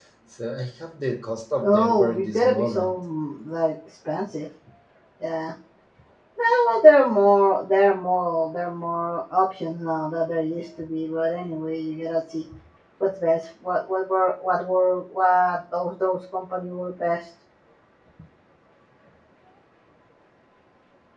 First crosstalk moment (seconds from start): 1.6 s

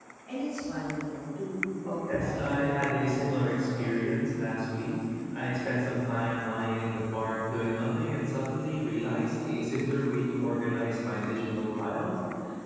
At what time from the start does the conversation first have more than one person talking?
1.9 s

